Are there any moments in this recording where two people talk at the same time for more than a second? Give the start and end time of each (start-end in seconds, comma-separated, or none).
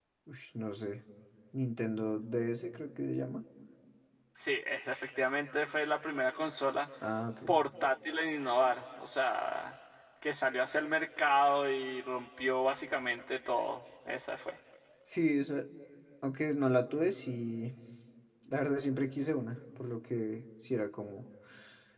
none